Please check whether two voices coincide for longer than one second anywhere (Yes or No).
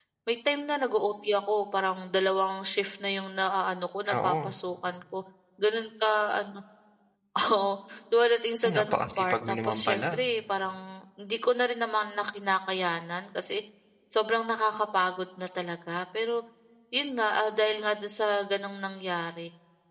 Yes